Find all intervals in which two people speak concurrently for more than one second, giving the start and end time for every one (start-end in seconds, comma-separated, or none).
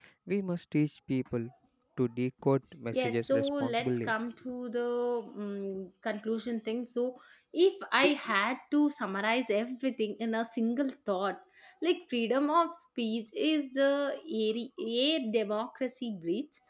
2.9-4.1